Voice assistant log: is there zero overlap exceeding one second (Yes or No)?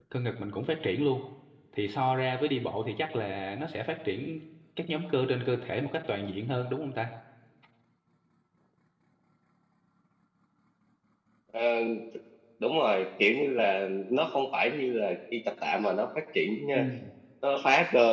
Yes